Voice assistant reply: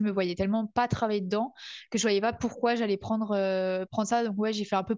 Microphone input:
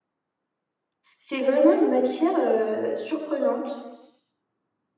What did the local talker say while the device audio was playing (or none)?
c'est vraiment une matière euh, surprenante,